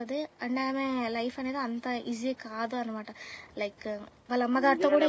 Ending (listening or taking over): taking over